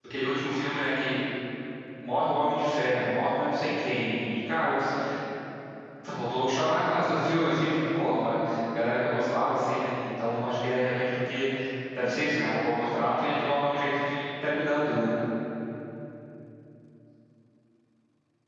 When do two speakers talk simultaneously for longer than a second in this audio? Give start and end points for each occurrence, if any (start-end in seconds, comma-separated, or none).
none